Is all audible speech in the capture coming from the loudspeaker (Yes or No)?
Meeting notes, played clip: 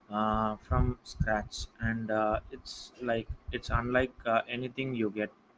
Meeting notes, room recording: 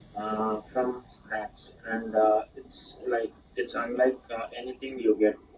Yes